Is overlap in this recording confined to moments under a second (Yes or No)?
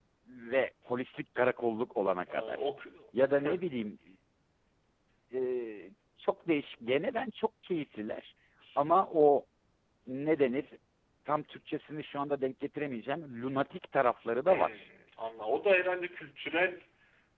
Yes